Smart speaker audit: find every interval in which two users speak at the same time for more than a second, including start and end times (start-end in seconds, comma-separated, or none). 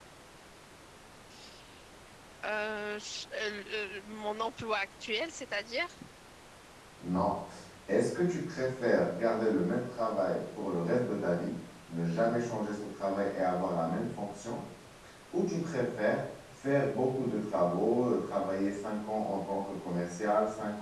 none